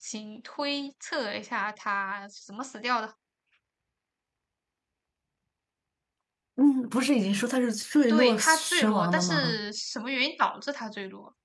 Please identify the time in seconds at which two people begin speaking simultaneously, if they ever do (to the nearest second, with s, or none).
8 s